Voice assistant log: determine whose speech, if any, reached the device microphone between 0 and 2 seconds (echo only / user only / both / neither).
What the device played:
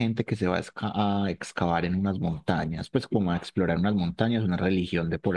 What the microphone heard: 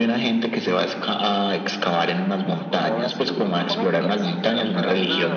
echo only